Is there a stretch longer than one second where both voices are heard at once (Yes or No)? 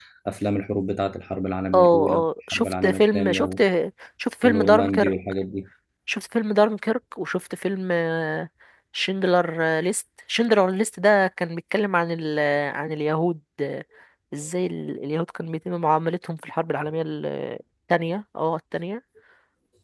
Yes